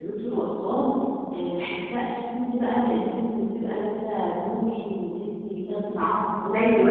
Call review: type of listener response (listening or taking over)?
taking over